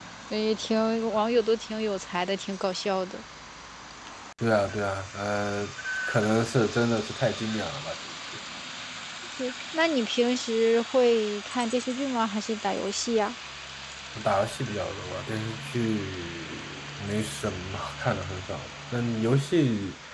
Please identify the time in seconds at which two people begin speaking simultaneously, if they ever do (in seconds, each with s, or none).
none